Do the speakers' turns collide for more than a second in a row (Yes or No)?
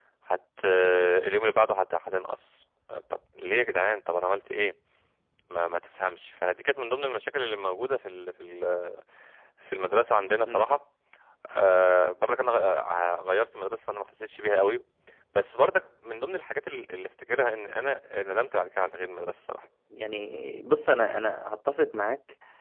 No